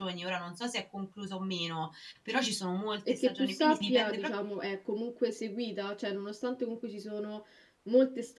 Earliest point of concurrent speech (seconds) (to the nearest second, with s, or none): 3 s